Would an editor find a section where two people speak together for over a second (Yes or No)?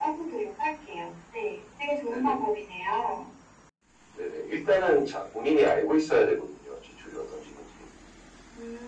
No